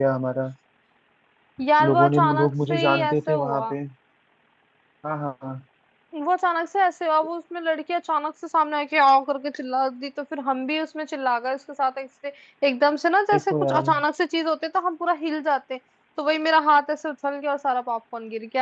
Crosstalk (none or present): present